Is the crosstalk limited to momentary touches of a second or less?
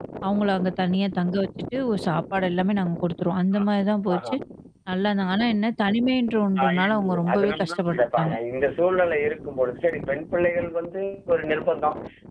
No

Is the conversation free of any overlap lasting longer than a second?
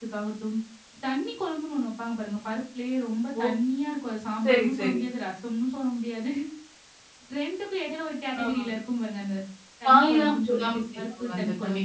No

